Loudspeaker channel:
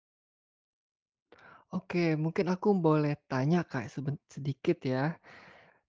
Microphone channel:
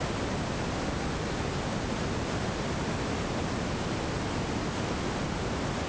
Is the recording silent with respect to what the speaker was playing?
Yes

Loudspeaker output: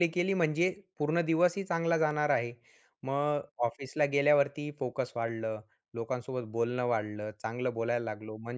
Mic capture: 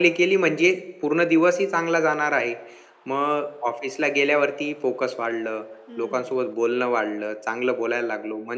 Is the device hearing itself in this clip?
Yes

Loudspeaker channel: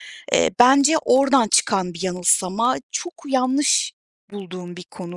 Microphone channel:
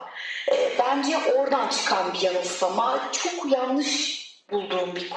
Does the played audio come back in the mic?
Yes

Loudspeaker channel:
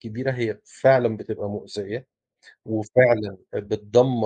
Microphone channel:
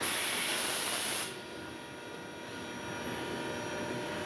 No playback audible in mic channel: Yes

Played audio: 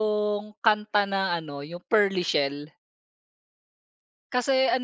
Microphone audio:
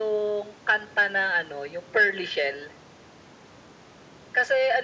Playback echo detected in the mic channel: Yes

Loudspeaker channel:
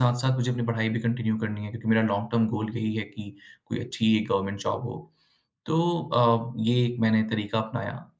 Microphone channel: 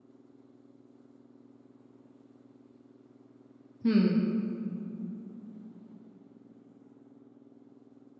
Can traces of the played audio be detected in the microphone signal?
No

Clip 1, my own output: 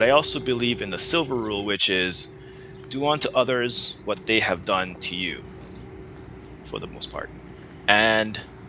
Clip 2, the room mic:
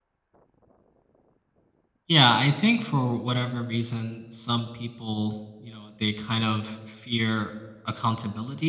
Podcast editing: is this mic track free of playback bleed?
Yes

